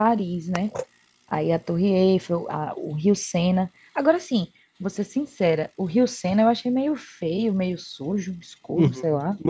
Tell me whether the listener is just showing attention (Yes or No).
No